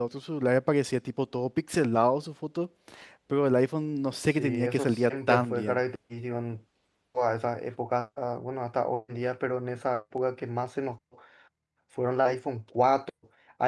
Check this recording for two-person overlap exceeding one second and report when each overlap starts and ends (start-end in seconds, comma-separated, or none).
4.4-5.8